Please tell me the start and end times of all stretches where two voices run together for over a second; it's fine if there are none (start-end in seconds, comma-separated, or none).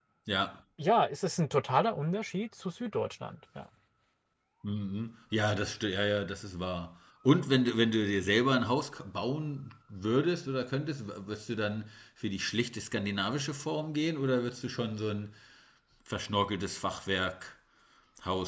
none